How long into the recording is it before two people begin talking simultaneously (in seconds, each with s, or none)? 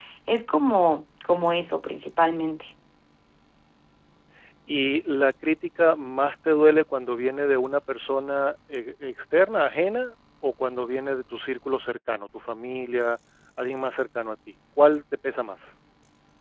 none